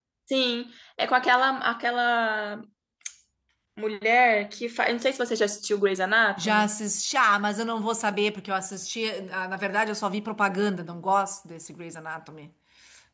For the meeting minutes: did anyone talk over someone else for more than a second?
No

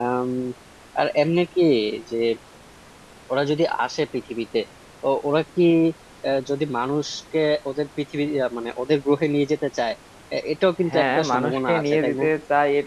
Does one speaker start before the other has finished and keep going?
Yes, from 10.9 s

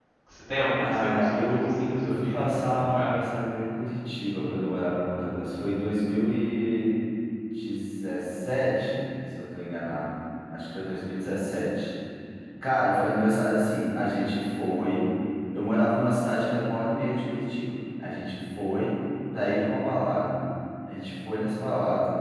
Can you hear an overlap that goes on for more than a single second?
Yes, from 0.8 s

